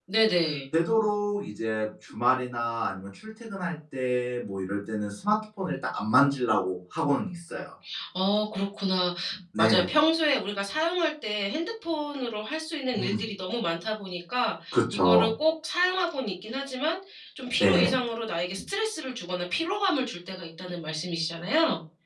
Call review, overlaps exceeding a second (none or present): none